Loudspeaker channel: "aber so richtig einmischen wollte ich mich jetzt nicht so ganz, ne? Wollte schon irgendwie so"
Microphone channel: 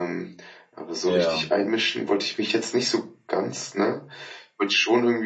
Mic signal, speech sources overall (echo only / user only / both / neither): both